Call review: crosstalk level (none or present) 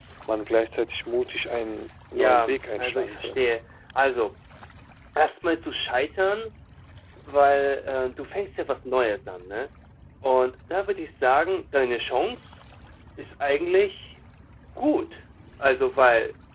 present